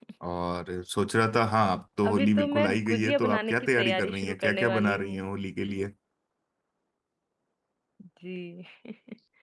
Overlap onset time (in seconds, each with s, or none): 2.0 s